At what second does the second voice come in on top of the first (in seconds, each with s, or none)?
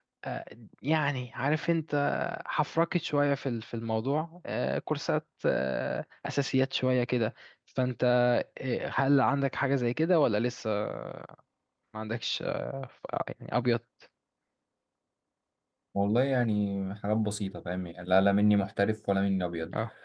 none